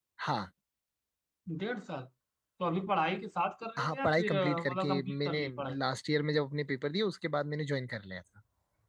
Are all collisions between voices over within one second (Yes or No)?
No